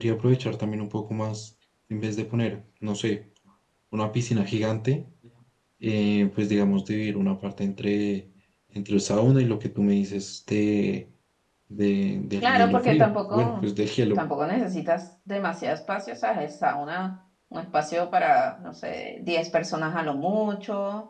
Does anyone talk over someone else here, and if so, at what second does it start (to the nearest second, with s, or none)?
12 s